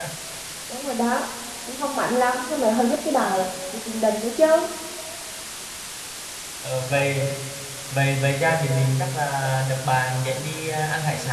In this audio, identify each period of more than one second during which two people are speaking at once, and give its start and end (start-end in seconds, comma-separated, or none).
none